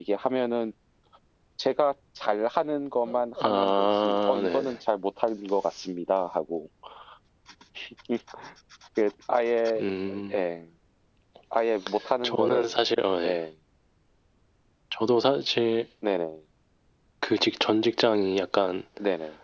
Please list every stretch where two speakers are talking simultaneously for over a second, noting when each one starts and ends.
3.4-4.8

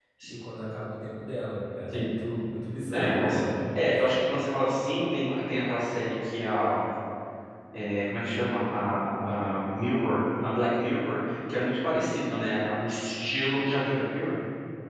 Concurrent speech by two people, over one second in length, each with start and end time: none

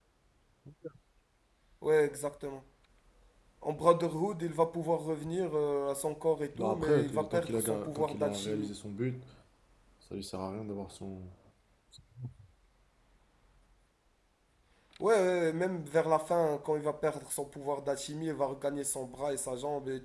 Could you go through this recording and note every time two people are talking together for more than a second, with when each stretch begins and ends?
6.6-8.7

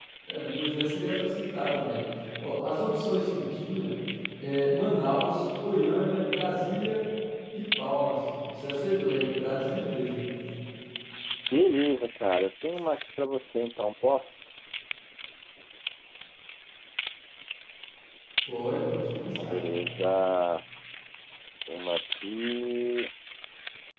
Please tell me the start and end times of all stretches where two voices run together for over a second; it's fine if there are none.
none

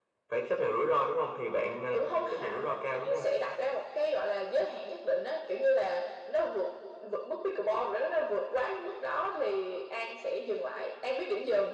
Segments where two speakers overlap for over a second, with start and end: 1.9-3.2

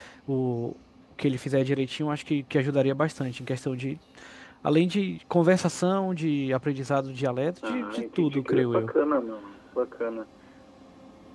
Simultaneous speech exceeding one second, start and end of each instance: 7.7-8.9

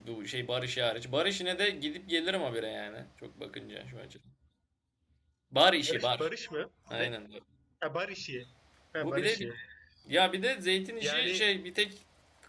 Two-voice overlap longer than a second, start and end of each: none

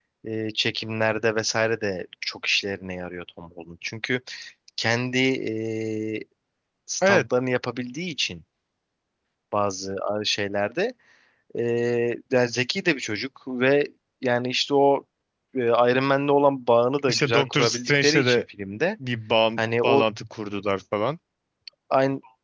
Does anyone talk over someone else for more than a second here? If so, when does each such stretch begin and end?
17.1-18.4

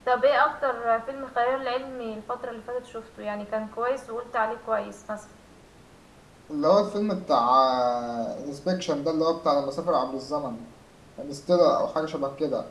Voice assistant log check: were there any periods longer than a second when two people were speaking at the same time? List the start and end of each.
none

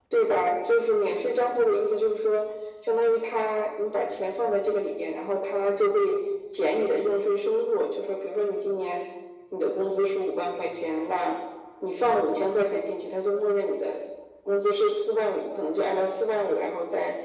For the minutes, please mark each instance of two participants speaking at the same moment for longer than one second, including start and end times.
none

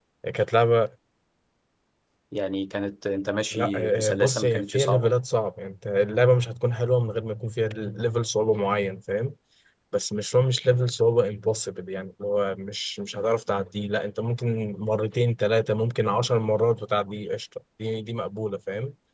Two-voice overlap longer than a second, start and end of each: 3.5-5.1

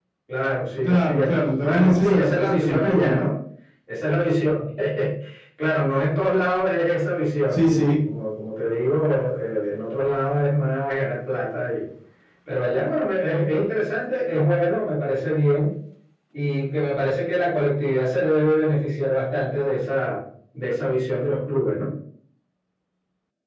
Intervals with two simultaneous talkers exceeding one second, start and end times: 0.8-3.3

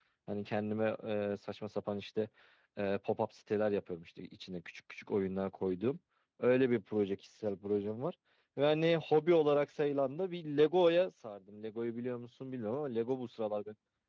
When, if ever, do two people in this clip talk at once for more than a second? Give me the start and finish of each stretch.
none

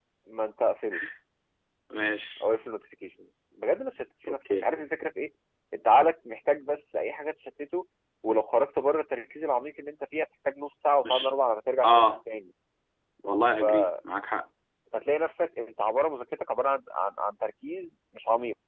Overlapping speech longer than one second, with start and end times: none

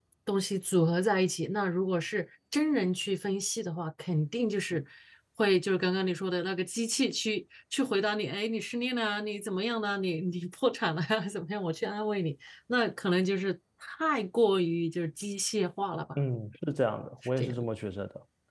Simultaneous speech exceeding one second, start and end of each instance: none

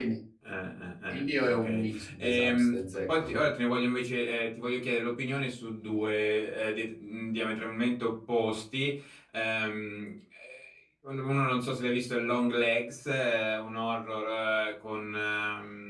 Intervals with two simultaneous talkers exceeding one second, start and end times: 1.1-3.4

